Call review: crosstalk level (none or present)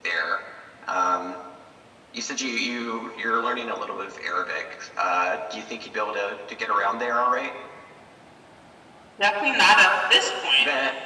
none